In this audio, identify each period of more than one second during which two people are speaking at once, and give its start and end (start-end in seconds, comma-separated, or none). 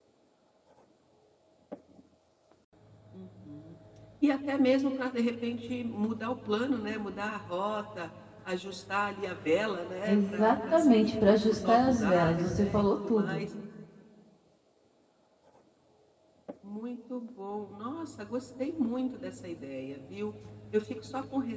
10.1-13.5